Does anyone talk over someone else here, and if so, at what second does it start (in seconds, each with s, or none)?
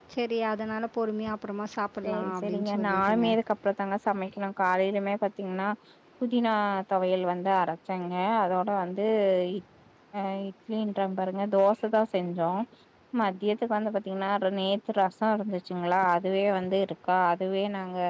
2.0 s